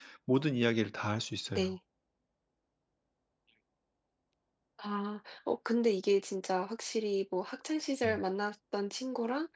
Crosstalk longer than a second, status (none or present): none